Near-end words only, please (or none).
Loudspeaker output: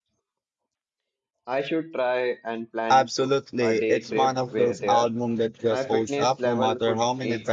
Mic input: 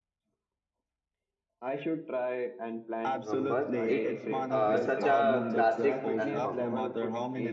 Rumbas. It uh, such a classic album.